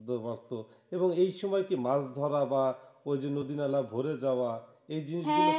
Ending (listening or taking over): taking over